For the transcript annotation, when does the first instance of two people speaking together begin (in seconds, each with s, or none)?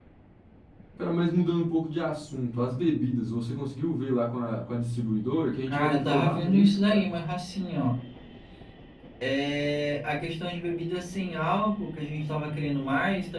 5.7 s